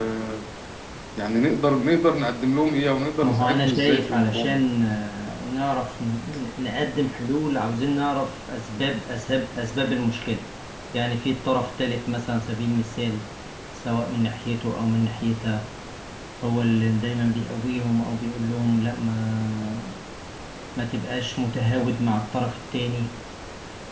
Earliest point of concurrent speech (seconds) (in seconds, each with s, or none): 3.2 s